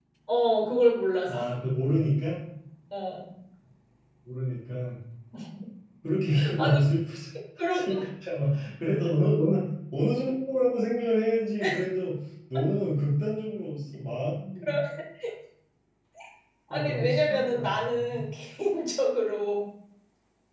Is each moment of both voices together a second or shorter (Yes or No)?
No